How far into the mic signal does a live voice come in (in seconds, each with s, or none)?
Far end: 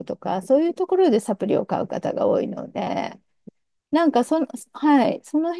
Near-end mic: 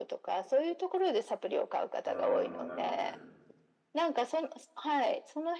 2.0 s